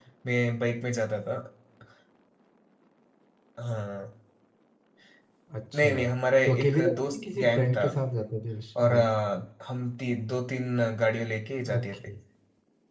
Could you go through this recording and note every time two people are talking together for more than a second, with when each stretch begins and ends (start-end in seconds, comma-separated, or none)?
6.5-7.8